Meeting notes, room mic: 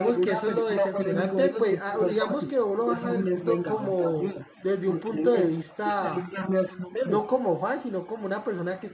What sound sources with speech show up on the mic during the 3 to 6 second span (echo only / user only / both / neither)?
both